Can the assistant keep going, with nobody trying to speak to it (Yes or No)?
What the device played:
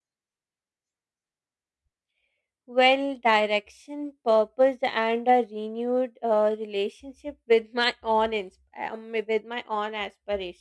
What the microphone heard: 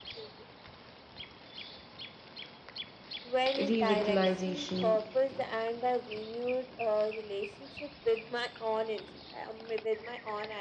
No